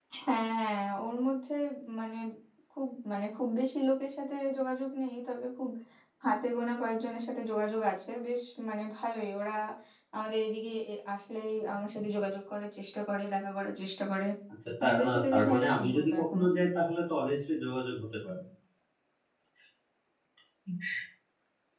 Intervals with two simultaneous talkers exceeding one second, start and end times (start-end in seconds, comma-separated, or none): 14.8-16.4